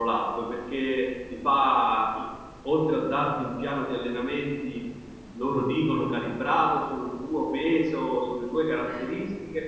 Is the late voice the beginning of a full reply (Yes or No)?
No